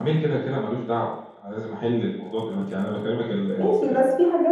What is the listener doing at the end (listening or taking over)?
taking over